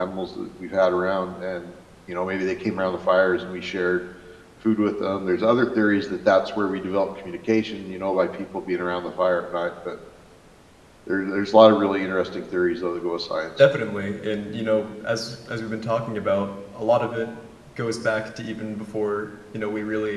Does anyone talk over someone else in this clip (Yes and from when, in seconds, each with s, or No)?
No